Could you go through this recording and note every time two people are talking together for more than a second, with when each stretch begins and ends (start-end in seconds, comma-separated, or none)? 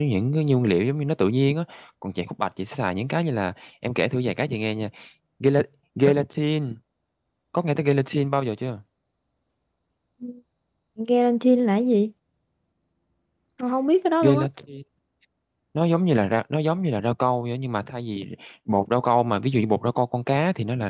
none